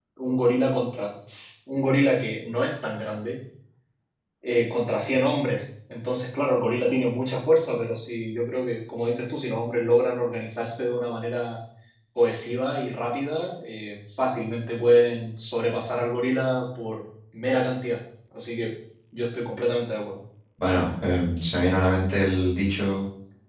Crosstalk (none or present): none